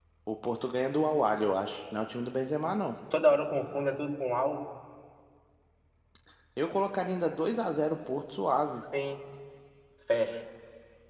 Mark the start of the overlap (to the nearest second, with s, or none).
none